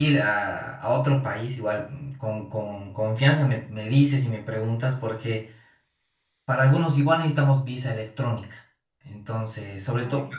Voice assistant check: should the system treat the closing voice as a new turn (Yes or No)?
No